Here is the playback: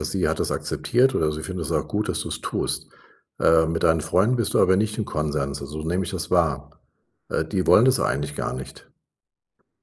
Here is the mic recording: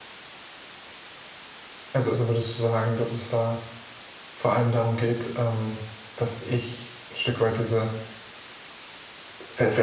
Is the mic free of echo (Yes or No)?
Yes